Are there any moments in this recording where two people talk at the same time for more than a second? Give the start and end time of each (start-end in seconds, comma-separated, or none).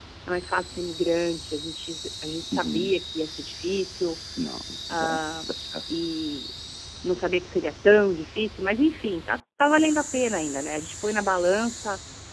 none